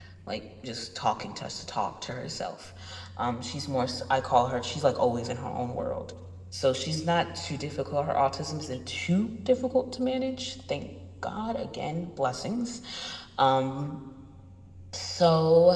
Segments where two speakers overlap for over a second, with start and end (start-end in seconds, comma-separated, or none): none